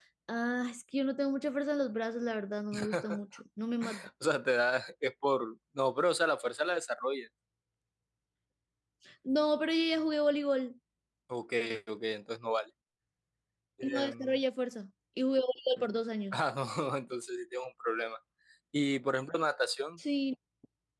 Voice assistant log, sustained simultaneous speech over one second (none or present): none